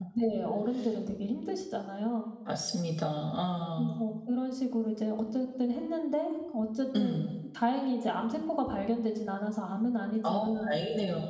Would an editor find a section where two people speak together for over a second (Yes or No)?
No